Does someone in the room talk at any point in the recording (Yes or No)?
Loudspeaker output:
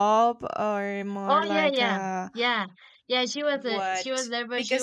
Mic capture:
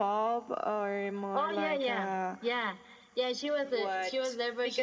No